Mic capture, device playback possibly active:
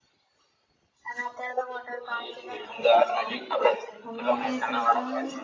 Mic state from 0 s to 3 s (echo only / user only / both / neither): echo only